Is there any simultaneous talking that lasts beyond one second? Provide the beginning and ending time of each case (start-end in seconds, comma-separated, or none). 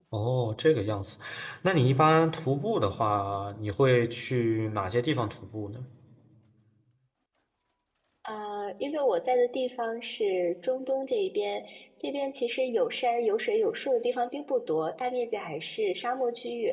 none